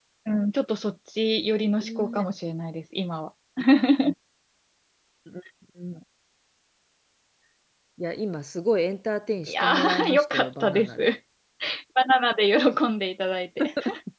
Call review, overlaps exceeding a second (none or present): present